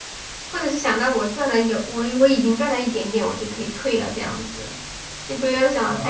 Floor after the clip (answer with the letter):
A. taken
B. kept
A